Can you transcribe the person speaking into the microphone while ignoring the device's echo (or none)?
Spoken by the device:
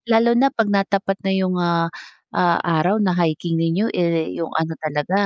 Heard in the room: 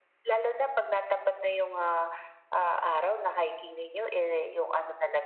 none